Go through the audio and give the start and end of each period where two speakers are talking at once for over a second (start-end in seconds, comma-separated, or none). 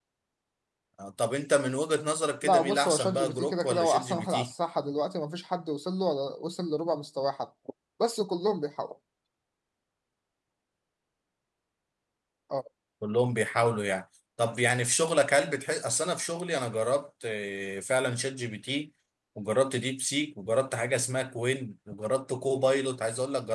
2.4-4.5